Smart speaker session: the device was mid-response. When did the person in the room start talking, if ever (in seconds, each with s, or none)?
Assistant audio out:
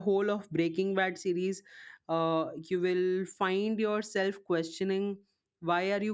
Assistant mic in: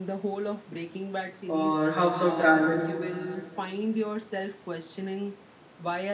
1.4 s